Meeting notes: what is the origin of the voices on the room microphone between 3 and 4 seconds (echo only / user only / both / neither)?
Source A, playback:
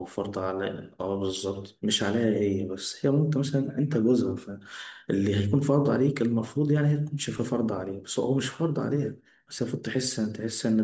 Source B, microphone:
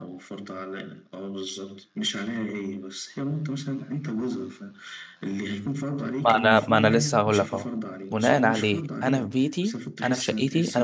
echo only